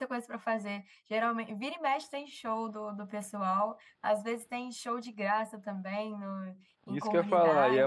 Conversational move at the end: taking over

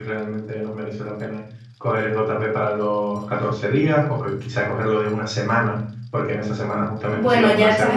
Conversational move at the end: taking over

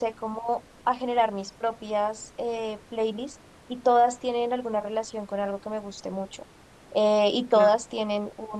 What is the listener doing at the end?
listening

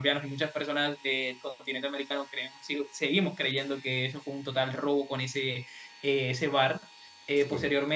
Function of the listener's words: listening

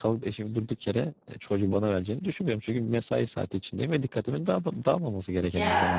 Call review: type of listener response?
taking over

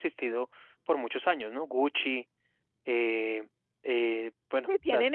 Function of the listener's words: taking over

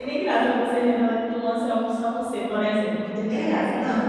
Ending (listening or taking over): taking over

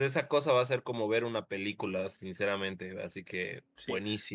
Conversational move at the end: taking over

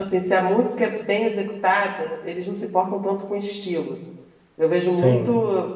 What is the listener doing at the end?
listening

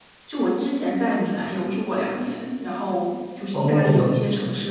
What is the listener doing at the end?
listening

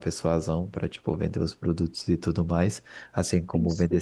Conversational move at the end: listening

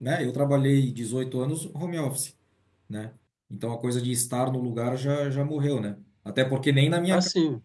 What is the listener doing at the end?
listening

